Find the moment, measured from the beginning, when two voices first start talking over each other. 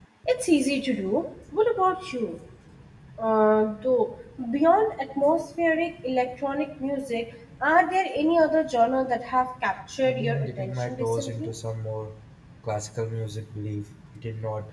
10.0 s

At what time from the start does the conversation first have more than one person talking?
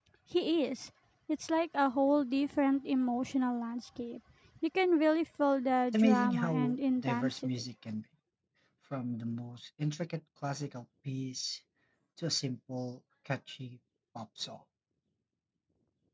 5.9 s

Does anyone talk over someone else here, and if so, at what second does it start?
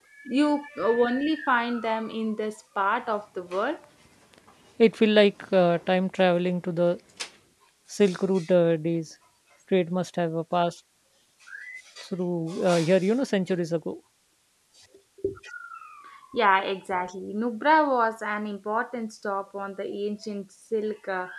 none

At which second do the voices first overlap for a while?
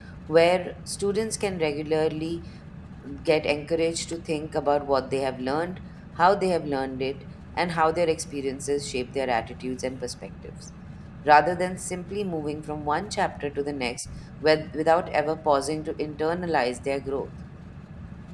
none

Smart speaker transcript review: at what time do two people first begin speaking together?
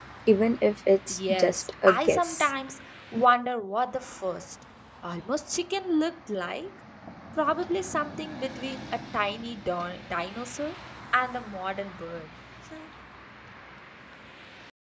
1.1 s

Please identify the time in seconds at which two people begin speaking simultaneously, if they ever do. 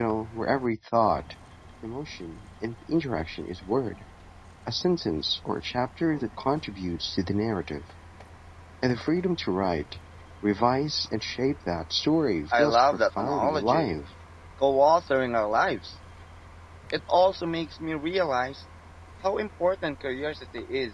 12.5 s

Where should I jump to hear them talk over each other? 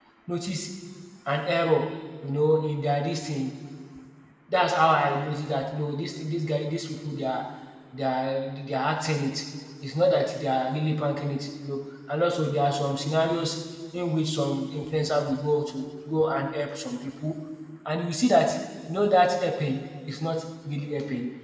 none

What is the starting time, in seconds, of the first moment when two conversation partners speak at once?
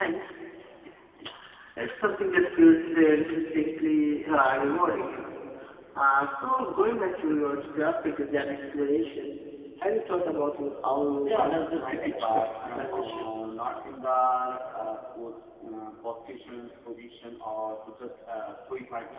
11.2 s

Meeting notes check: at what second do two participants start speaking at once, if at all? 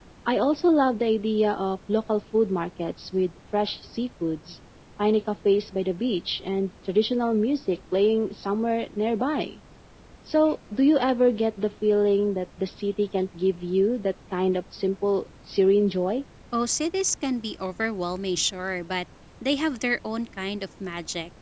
none

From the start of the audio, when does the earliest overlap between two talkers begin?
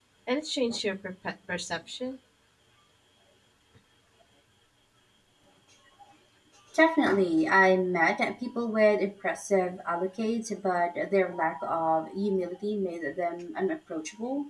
none

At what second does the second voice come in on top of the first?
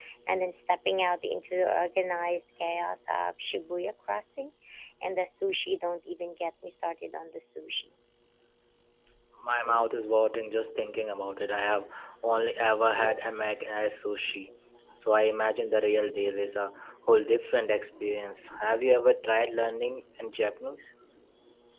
none

